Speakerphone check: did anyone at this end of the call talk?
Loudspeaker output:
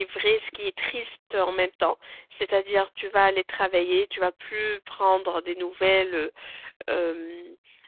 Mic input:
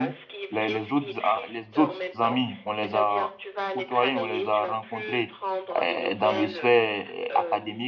Yes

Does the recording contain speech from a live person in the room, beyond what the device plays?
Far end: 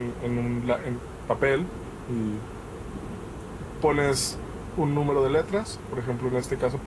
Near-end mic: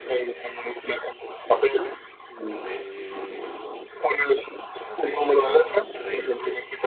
Yes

